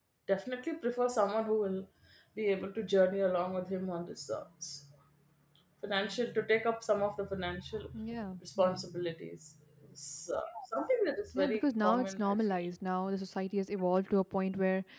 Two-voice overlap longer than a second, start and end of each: 11.3-12.7

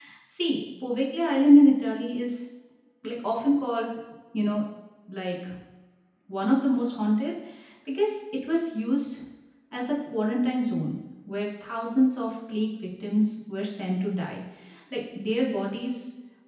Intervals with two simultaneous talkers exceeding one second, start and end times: none

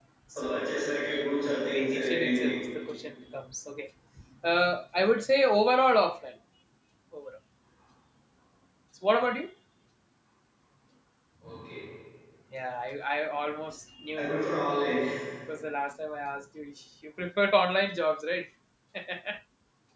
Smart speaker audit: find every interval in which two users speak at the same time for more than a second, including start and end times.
1.1-2.6

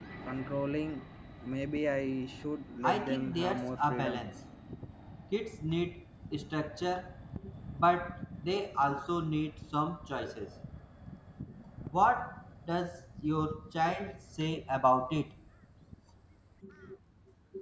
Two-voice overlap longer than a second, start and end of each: 2.8-4.2

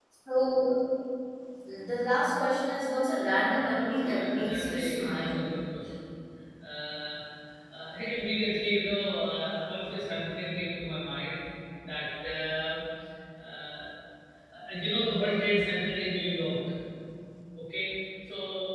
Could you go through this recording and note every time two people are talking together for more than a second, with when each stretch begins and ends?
3.5-5.4

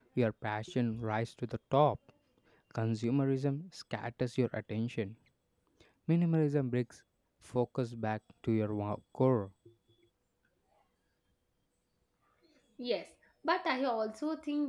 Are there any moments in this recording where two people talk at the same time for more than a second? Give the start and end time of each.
none

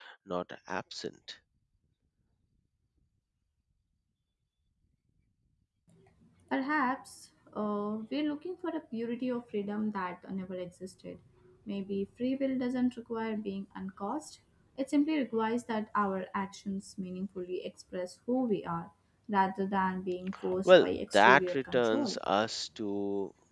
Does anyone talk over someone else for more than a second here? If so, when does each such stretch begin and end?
20.6-22.2

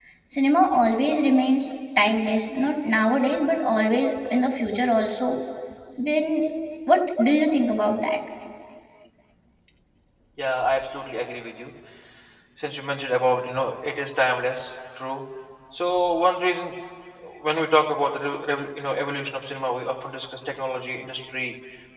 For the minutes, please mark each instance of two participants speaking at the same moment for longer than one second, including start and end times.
none

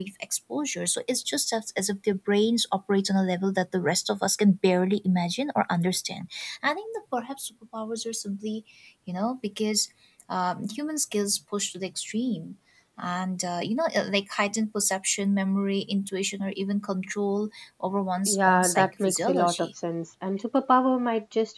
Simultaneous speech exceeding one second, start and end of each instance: 18.3-19.7

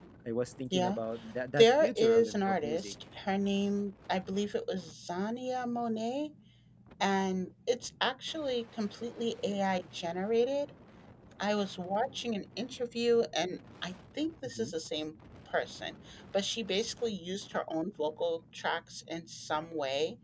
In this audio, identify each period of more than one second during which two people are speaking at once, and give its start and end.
1.6-2.9

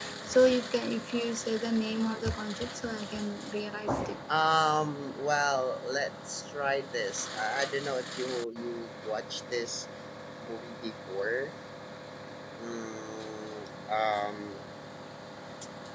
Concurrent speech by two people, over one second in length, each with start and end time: none

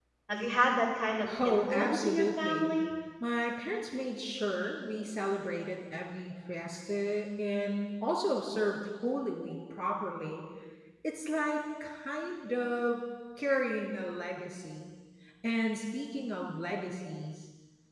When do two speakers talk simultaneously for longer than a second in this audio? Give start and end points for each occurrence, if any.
1.4-2.8

